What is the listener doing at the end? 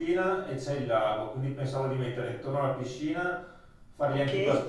listening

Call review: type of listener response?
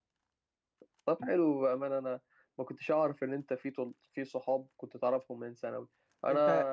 listening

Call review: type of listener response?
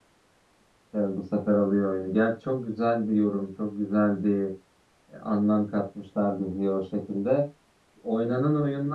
listening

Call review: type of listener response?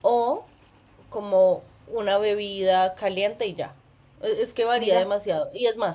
listening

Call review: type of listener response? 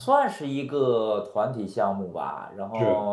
listening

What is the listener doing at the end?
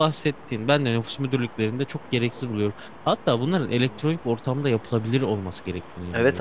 taking over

